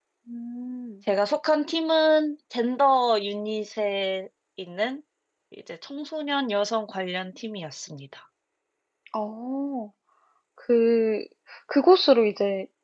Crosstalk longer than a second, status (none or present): none